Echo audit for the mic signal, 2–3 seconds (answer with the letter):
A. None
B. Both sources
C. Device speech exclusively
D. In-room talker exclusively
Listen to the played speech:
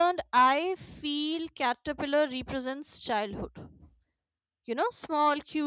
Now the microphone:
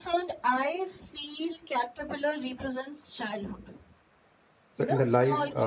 C